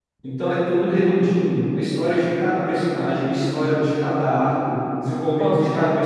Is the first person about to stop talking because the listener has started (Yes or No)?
No